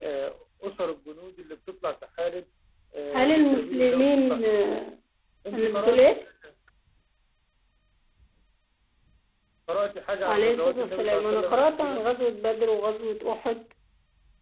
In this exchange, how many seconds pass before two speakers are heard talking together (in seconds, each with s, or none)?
3.1 s